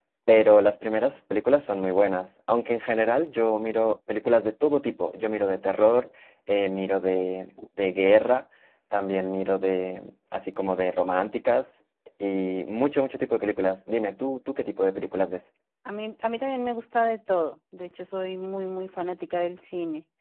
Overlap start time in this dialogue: none

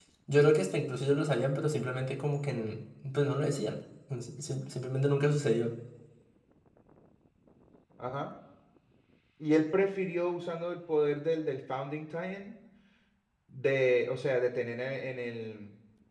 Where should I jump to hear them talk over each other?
none

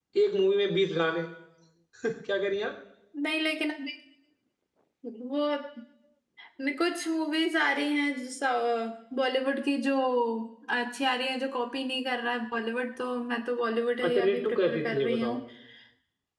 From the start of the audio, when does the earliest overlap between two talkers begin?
14.0 s

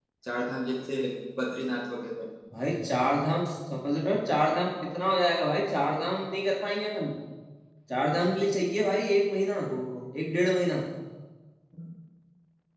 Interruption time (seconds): none

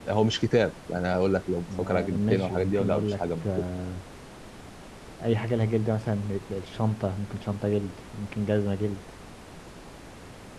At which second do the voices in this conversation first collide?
1.7 s

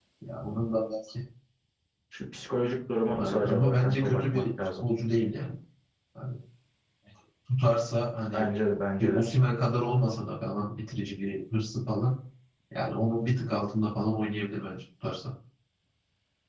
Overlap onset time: 3.2 s

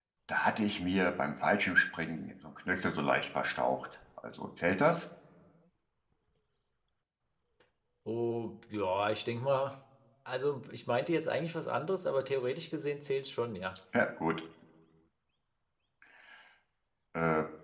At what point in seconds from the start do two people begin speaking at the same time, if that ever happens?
none

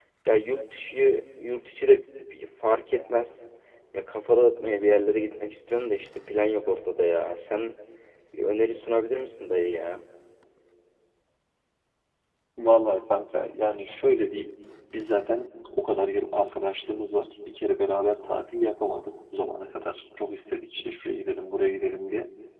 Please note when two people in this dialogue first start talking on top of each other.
none

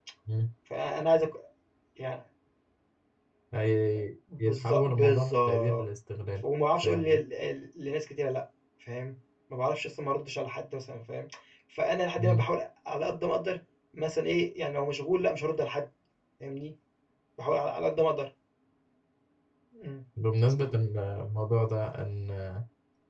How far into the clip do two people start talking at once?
4.4 s

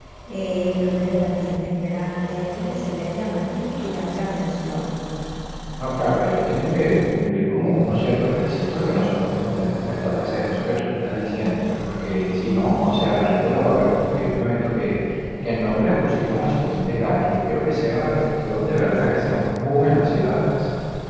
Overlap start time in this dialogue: none

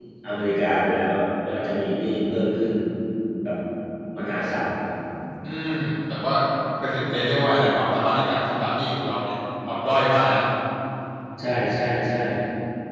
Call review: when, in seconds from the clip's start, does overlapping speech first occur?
none

